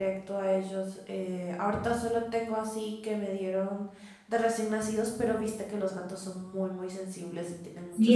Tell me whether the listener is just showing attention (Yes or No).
No